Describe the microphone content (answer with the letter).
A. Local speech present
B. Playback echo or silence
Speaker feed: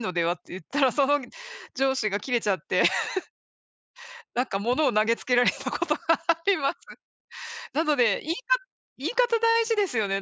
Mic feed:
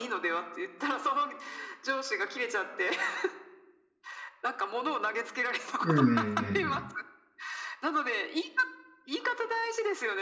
A